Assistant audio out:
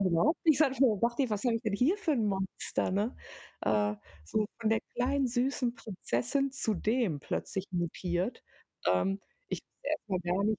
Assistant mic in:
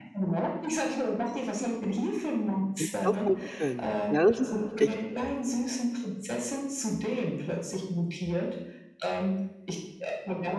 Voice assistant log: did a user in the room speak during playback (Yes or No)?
Yes